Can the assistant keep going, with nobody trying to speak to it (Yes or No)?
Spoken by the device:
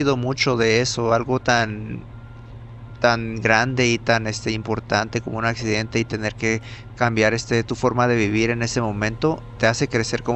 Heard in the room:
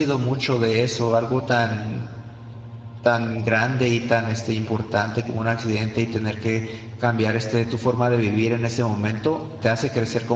Yes